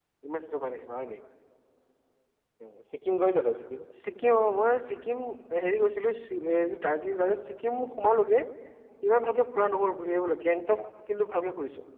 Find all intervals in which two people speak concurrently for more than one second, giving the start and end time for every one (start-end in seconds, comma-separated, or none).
none